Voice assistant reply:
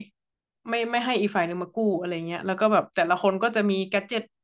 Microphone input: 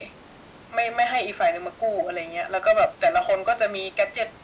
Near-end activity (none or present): none